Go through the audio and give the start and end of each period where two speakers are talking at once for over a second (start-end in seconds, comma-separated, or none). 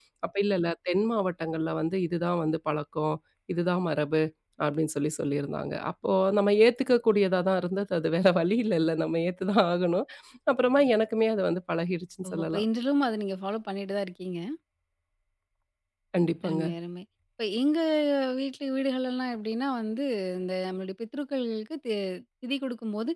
none